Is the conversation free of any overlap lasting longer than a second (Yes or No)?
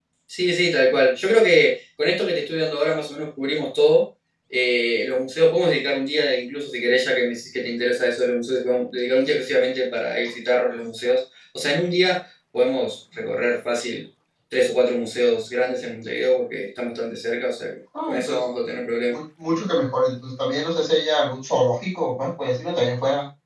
Yes